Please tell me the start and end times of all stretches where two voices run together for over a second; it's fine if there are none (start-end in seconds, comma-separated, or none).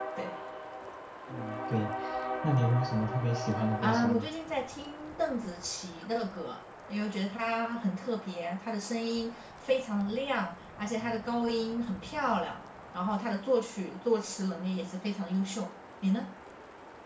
none